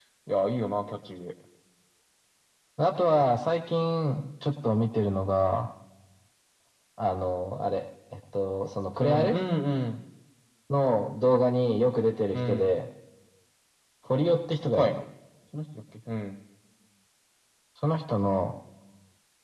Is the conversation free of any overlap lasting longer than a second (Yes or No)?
Yes